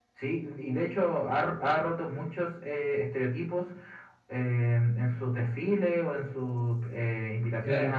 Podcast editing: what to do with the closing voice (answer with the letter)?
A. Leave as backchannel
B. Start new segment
A